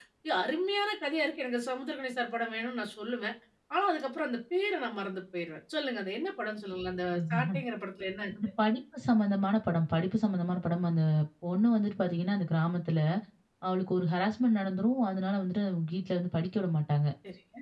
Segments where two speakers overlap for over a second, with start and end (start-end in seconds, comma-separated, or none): none